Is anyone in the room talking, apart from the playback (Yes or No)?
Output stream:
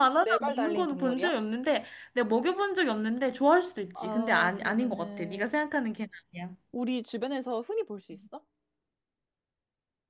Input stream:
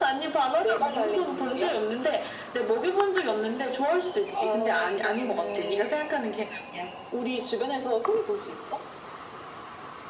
No